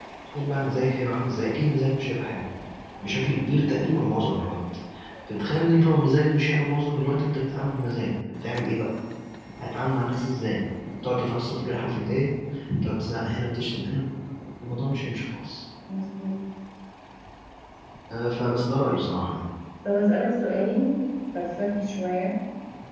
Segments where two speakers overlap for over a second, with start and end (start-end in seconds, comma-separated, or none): none